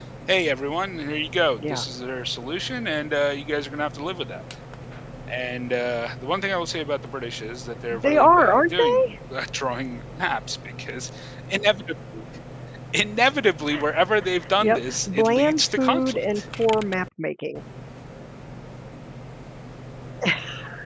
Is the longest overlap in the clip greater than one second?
Yes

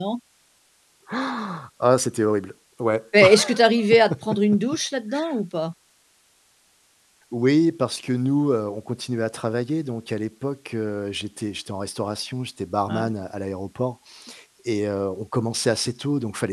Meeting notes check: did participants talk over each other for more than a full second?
No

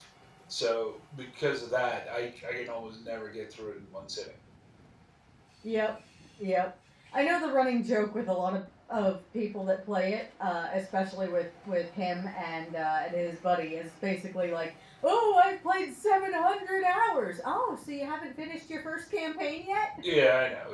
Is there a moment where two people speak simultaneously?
No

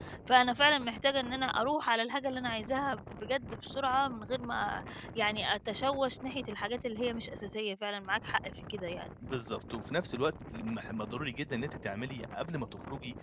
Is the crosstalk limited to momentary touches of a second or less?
Yes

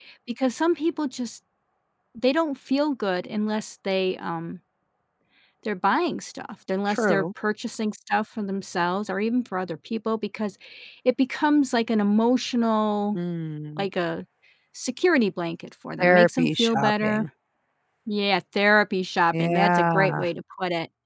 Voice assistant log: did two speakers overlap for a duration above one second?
Yes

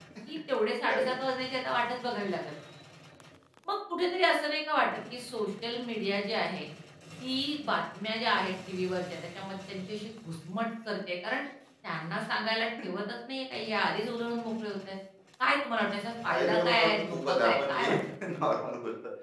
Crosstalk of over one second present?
Yes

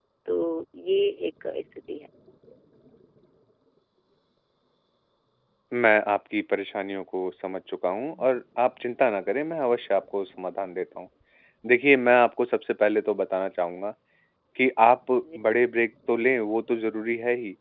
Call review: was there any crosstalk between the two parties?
No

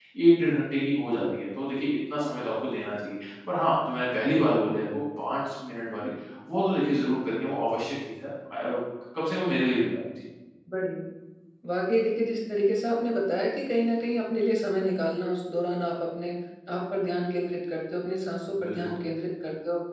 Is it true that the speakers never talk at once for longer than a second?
Yes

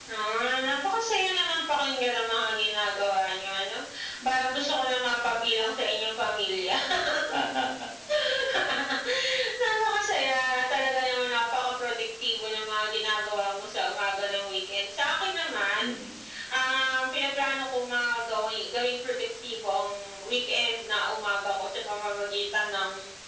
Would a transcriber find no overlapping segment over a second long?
Yes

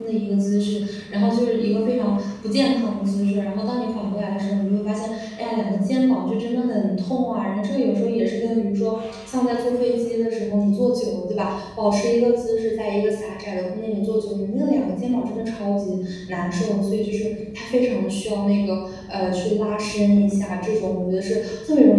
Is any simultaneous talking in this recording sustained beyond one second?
No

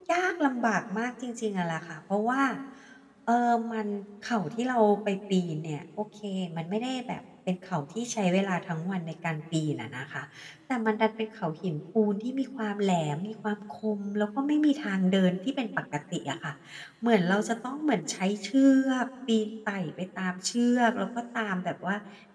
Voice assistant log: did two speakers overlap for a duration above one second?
No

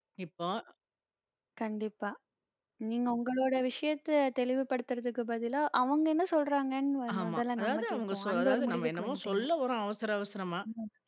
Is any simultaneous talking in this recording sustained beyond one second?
Yes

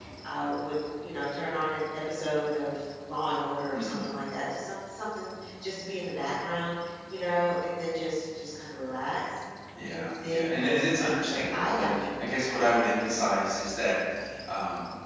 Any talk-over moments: Yes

